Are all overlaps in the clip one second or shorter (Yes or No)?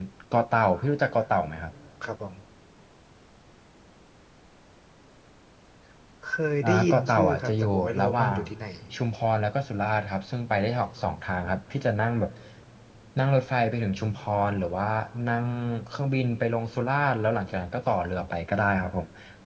No